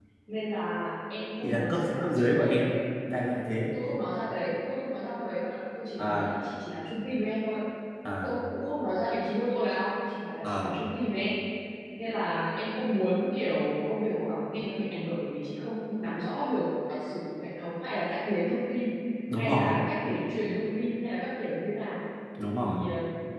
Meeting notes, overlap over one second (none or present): present